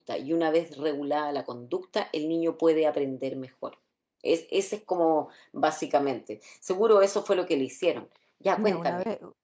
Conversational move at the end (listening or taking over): taking over